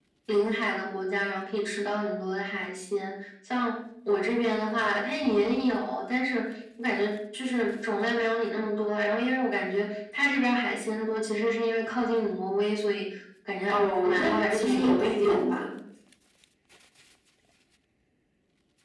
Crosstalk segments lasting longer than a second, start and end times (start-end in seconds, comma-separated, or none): 13.7-15.6